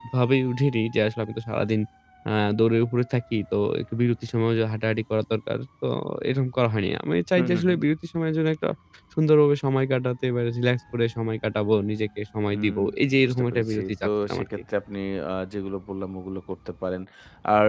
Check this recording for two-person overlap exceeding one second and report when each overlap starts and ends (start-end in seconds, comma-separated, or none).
13.2-14.6